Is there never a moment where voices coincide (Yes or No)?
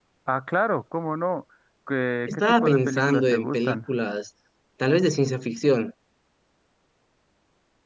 No